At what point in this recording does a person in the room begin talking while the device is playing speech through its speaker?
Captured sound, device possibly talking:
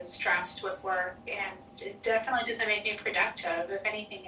none

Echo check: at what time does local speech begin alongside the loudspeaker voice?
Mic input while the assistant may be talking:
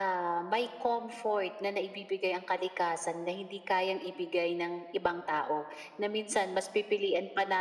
none

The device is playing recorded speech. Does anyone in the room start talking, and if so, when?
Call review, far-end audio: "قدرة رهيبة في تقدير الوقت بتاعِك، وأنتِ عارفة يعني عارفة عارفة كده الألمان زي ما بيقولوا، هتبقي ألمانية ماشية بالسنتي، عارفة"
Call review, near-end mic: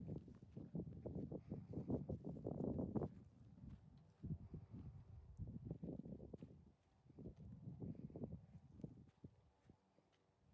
none

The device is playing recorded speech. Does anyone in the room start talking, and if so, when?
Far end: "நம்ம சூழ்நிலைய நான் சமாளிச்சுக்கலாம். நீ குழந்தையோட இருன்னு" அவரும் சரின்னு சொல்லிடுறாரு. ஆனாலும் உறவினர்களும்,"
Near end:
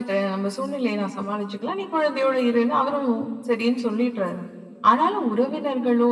none

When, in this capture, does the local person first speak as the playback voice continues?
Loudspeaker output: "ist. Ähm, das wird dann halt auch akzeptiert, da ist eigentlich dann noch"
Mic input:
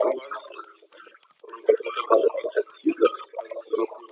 none

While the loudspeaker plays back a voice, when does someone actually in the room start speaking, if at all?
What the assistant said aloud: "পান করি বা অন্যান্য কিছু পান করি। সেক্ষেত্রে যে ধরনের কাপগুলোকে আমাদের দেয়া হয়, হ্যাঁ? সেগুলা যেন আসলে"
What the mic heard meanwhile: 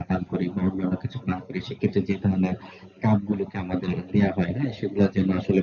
none

